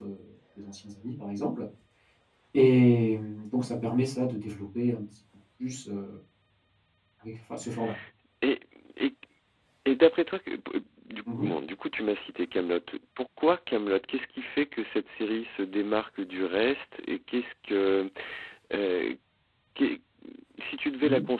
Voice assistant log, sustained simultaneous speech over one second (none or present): none